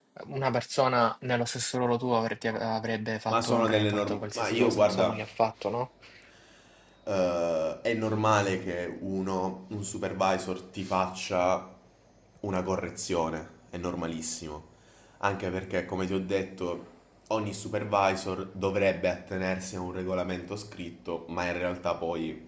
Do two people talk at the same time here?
Yes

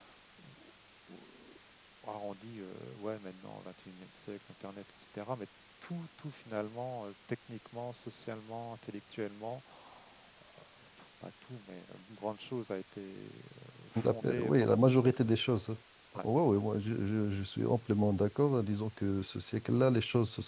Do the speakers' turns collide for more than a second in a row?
Yes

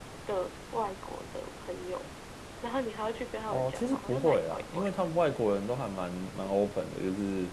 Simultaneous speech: Yes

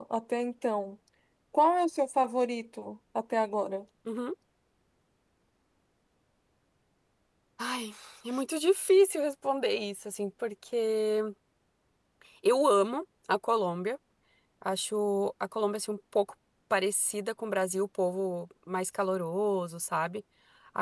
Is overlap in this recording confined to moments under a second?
Yes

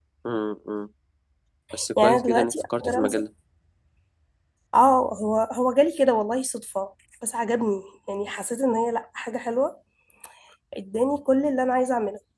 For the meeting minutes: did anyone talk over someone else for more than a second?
Yes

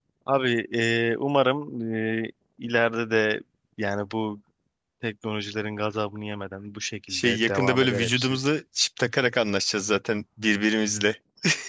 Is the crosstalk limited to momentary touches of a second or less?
No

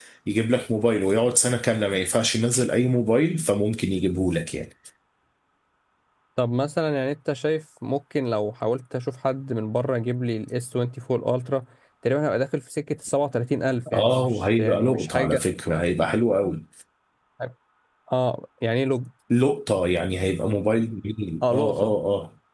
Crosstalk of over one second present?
Yes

